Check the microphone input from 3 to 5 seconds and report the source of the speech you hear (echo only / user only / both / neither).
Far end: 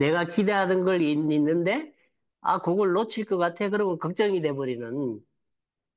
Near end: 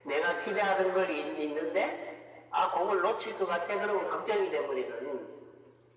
echo only